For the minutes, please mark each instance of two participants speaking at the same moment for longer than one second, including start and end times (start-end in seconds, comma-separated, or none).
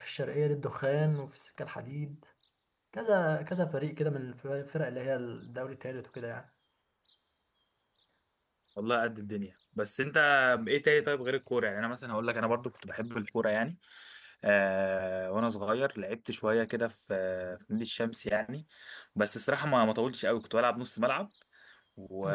none